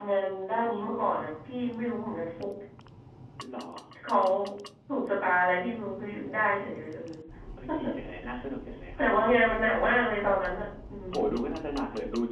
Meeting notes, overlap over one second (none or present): none